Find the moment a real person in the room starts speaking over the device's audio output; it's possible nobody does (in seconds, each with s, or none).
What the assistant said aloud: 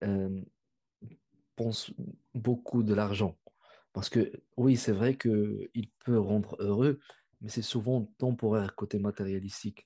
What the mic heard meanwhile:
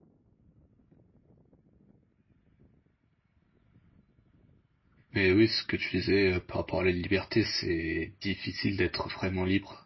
5.1 s